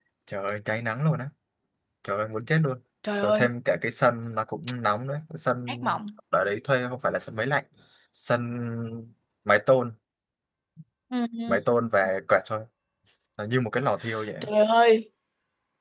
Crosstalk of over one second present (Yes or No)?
No